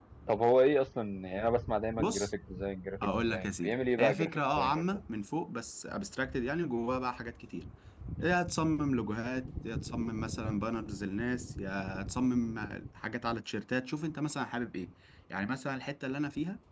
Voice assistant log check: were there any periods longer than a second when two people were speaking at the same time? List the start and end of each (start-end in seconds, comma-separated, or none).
3.0-5.0